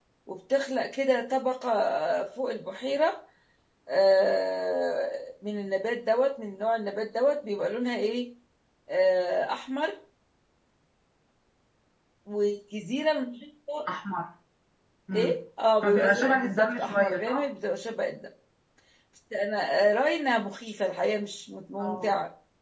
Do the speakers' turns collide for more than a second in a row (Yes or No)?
Yes